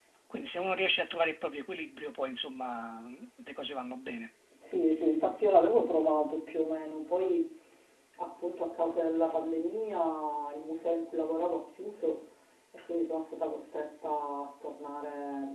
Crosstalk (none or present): none